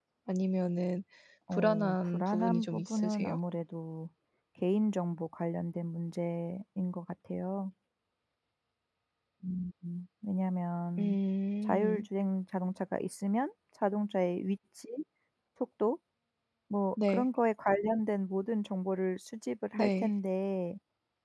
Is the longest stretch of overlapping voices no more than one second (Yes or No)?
No